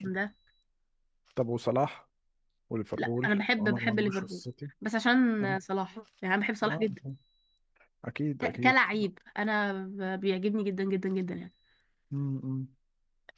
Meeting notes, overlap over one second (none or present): present